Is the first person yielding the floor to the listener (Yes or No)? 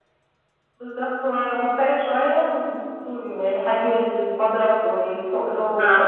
Yes